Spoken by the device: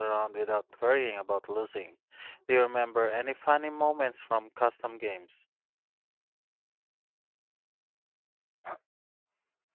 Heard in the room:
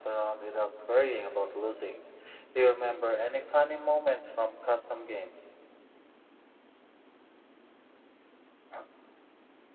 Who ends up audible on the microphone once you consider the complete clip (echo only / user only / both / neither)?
echo only